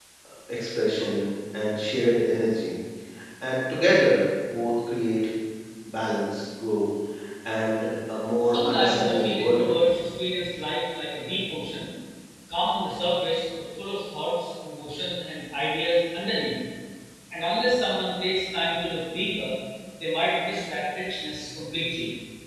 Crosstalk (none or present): present